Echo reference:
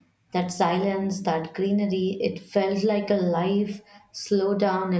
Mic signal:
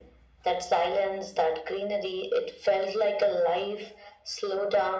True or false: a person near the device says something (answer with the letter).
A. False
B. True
A